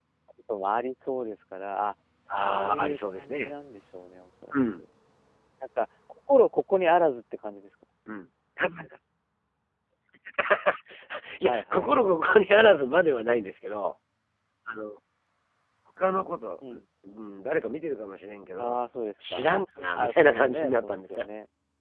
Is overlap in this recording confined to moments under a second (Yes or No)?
No